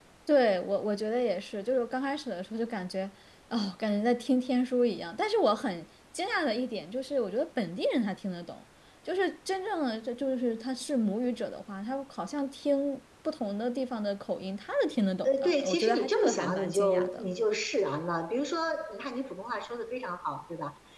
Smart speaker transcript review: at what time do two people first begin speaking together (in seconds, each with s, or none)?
15.2 s